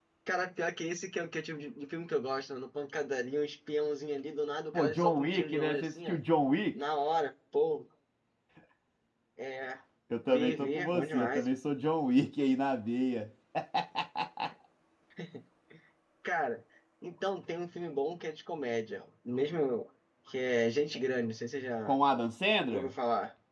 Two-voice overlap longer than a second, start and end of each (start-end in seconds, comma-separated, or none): 4.7-6.2, 10.3-11.5